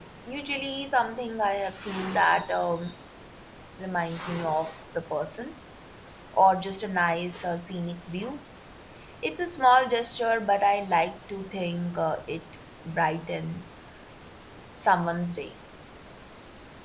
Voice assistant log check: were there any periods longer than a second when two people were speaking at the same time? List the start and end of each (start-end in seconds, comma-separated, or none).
none